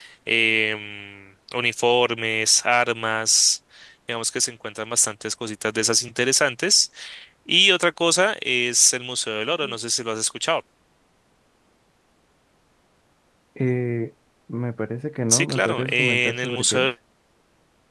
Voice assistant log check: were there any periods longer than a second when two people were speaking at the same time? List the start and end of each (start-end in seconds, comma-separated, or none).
15.3-16.9